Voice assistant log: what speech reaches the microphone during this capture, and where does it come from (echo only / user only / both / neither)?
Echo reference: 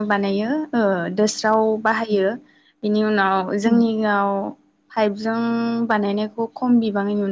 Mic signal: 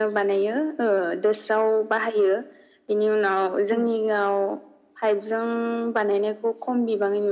echo only